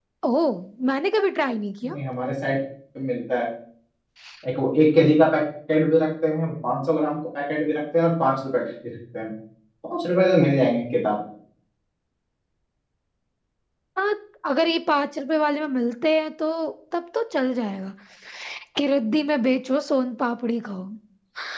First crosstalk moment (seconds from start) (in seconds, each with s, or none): none